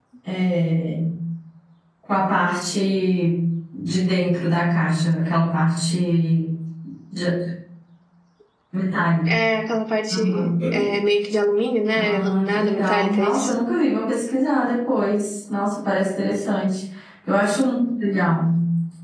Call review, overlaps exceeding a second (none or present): present